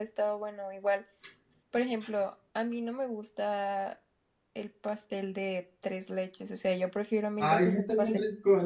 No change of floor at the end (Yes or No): No